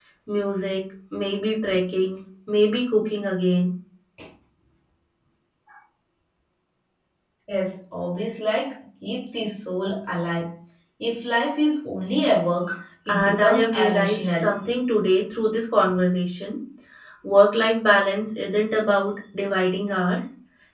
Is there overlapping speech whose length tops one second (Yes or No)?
Yes